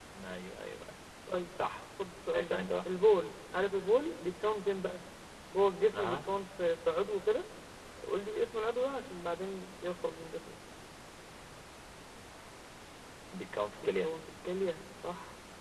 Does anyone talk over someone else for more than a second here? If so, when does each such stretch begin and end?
none

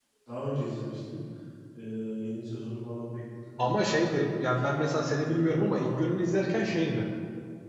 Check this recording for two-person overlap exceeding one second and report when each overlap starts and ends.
3.6-6.7

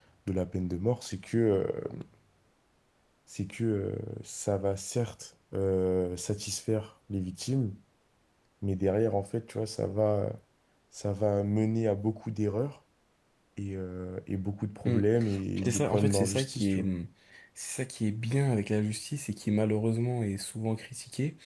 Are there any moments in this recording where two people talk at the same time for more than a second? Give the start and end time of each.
15.6-16.9

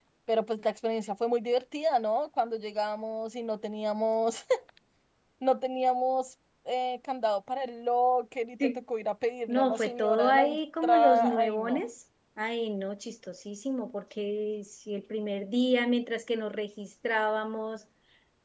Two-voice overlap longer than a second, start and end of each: 9.5-11.8

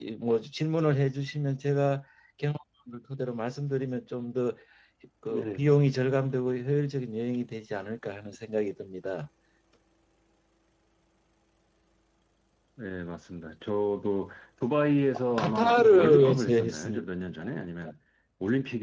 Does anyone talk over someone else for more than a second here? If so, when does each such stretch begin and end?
15.4-17.1

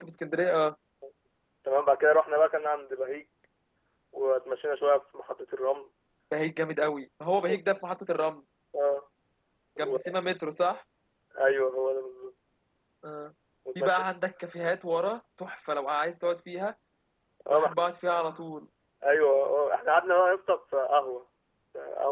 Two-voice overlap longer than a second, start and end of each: none

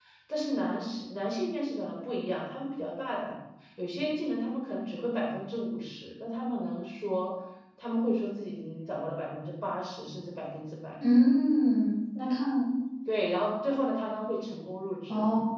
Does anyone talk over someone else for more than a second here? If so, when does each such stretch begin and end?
none

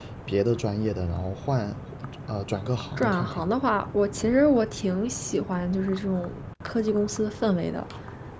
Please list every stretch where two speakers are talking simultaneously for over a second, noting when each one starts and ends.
none

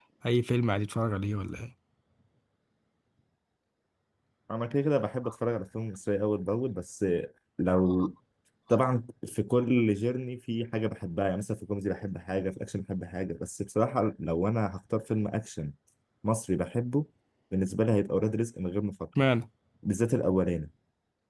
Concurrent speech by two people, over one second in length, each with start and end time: none

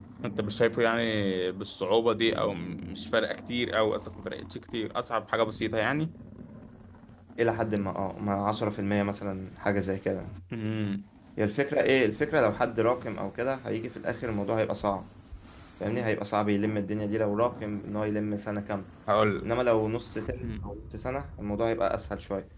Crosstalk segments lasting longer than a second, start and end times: none

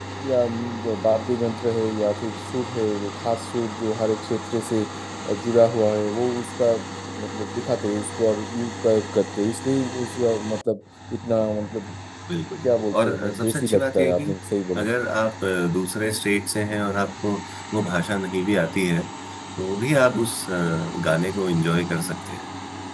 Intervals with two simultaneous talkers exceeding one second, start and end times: 12.6-14.2

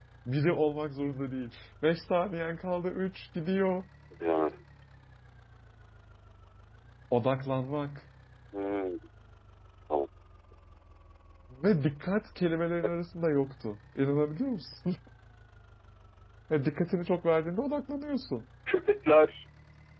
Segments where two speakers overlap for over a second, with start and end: none

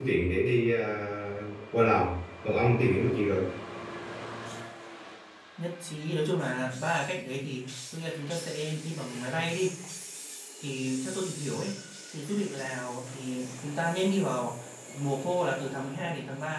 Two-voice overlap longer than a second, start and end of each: none

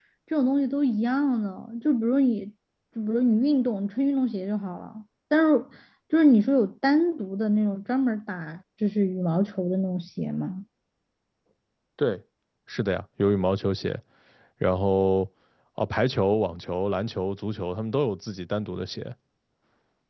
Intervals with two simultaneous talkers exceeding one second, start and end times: none

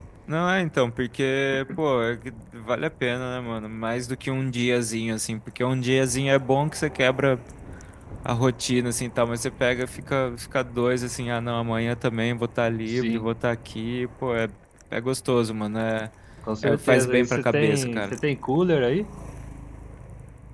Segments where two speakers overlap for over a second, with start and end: 16.6-18.1

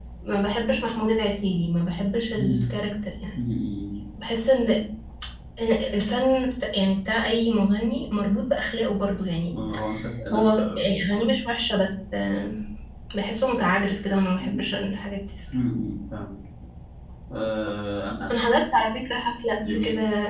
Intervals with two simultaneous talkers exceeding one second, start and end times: none

